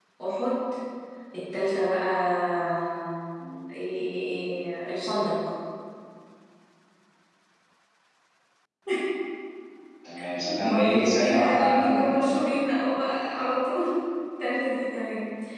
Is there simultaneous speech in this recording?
Yes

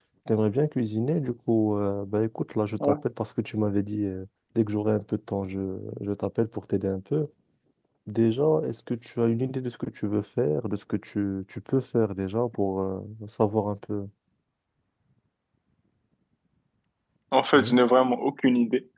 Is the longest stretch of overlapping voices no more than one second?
Yes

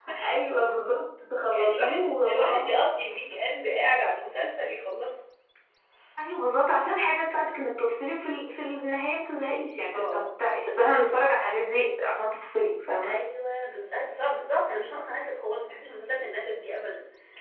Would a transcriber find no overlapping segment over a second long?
No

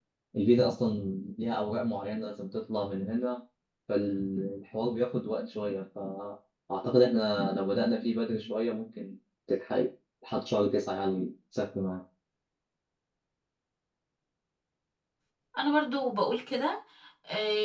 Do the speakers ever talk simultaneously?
No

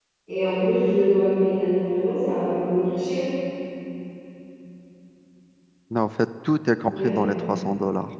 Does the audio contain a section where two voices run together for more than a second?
No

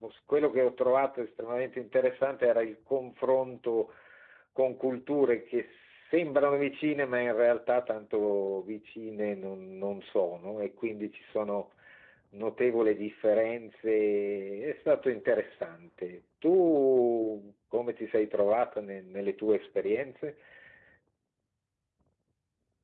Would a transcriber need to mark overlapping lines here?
No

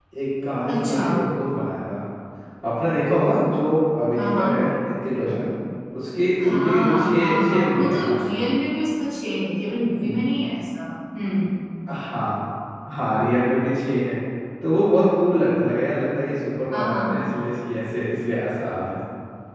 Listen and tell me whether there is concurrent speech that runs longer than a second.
Yes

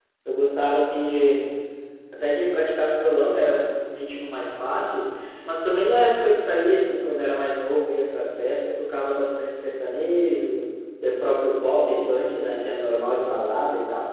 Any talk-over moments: No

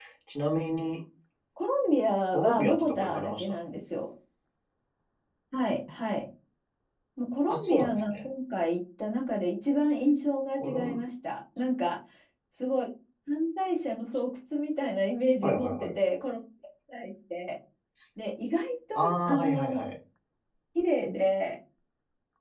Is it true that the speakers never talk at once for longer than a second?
No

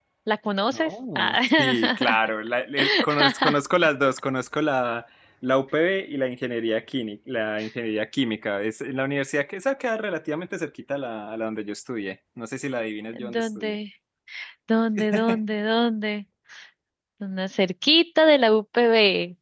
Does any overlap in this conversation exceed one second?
Yes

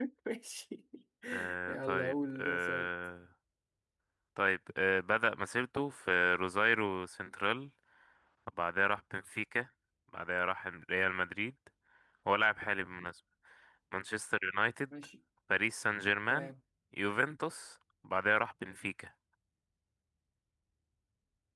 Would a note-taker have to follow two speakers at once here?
Yes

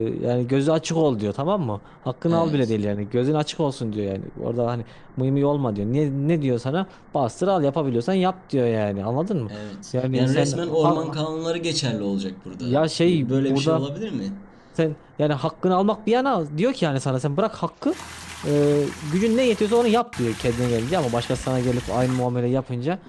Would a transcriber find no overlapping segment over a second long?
No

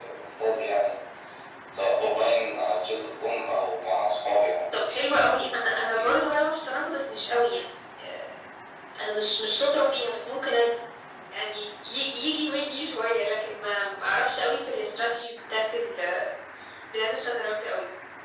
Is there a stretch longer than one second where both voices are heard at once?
No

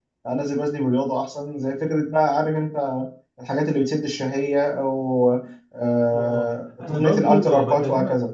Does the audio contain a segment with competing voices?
Yes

